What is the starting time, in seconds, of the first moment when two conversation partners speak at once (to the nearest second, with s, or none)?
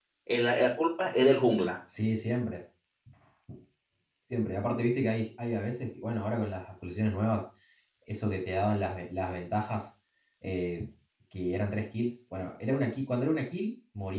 none